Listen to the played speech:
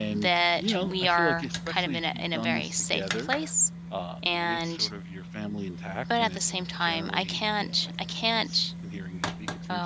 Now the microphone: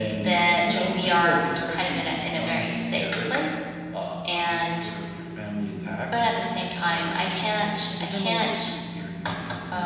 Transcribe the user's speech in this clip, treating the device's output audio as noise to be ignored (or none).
but then a lot of it is just